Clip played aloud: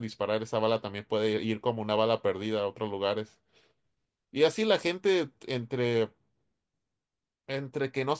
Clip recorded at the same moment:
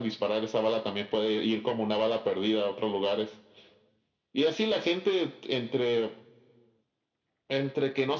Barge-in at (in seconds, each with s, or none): none